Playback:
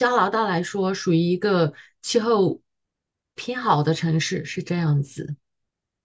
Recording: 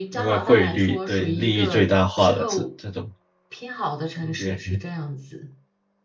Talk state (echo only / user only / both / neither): both